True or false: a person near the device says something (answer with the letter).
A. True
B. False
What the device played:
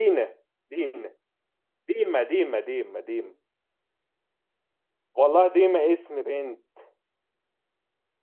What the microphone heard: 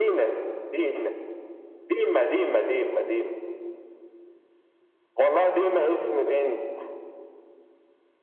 B